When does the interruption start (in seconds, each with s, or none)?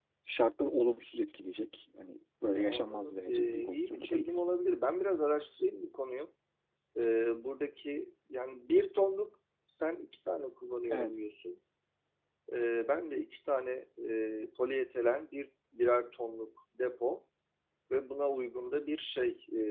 2.5 s